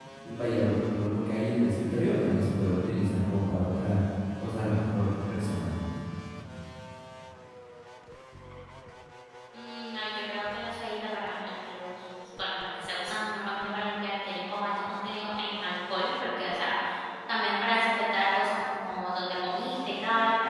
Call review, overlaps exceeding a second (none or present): none